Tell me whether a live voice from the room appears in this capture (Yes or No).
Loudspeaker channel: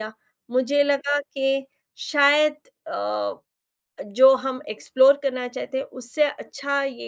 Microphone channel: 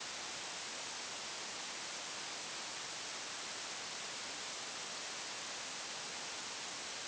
No